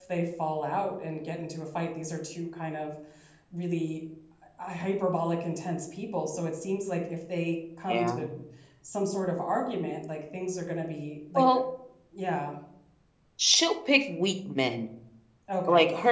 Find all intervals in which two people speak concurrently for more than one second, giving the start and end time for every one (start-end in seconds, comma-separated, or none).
none